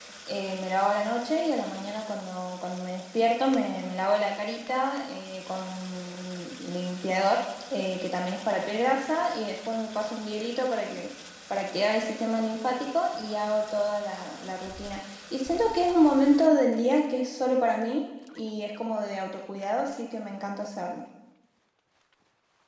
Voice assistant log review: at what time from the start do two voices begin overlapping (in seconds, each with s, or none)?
none